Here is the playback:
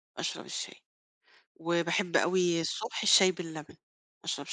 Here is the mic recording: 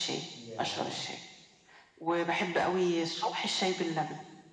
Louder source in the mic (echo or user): echo